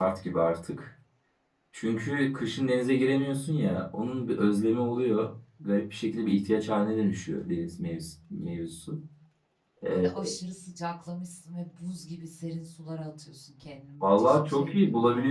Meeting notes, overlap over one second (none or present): present